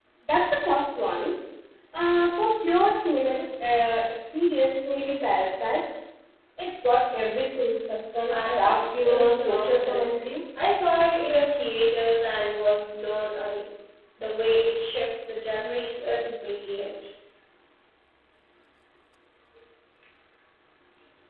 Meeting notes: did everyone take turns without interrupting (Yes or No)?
No